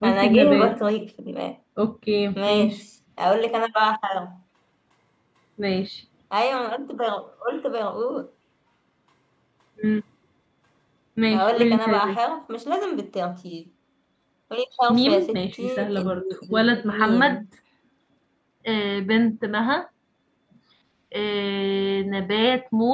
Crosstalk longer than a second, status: present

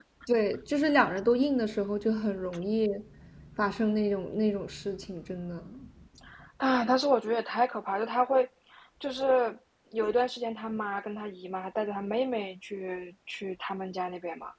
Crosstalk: none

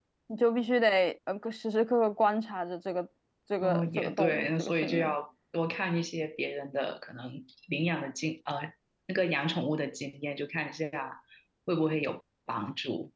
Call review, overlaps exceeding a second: present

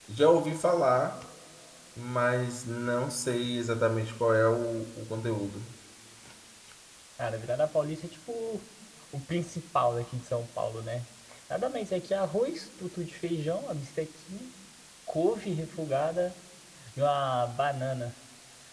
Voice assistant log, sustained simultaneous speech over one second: none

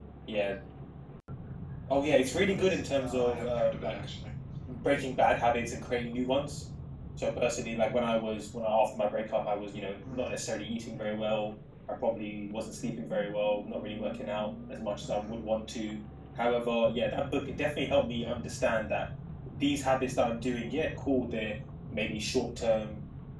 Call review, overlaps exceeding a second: present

